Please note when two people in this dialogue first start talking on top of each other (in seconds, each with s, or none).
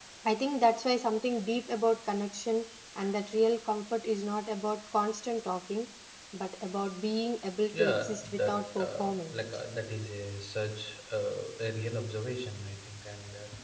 7.7 s